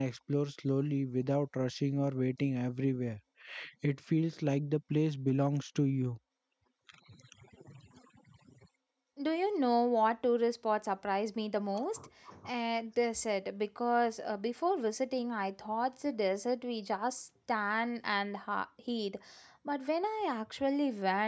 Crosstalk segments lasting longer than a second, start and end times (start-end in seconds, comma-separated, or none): none